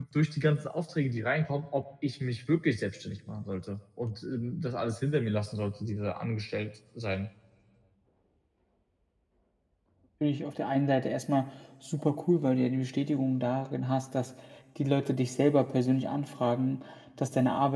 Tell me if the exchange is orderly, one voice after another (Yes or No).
Yes